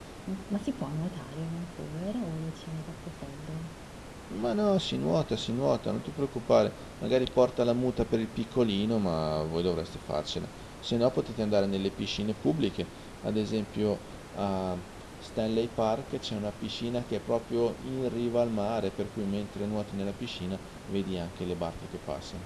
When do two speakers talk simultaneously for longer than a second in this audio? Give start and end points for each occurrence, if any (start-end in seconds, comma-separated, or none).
none